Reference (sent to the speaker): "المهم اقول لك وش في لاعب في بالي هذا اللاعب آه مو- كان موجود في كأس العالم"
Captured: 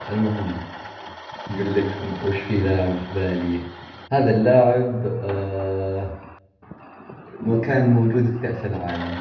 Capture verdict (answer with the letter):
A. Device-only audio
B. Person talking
A